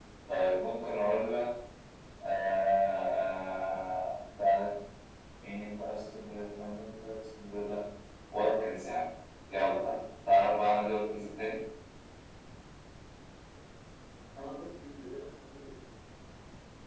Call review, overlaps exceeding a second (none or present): none